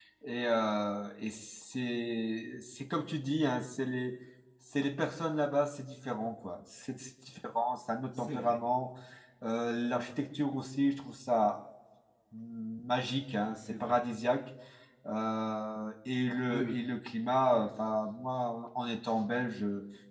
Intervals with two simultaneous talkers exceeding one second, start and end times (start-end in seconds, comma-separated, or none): none